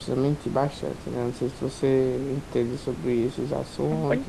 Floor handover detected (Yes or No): Yes